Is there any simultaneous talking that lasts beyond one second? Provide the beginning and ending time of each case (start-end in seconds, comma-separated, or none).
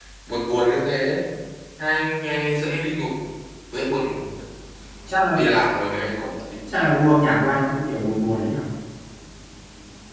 none